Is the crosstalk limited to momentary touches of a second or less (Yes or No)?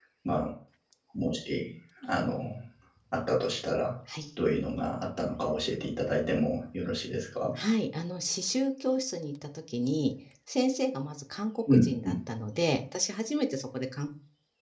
Yes